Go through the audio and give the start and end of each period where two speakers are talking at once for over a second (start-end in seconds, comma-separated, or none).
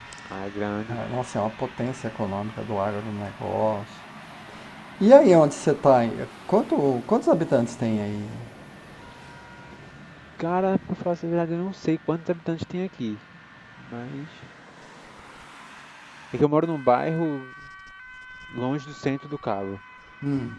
none